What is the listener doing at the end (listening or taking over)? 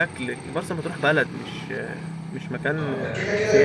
taking over